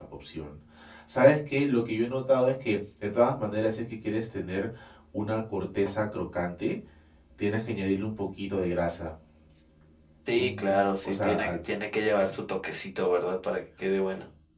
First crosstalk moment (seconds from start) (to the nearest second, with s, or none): 10 s